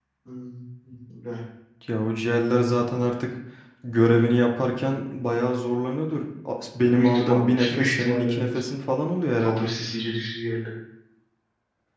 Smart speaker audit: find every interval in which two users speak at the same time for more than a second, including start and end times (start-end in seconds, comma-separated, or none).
6.9-8.6